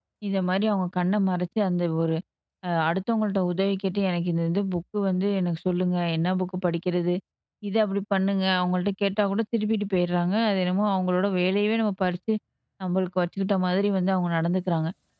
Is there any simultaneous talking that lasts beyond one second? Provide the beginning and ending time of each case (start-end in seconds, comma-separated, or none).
none